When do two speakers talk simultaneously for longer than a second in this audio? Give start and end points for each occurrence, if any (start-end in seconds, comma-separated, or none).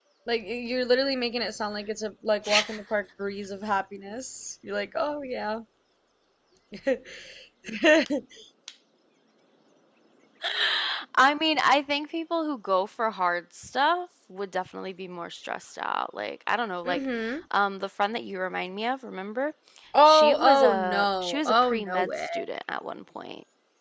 20.0-22.3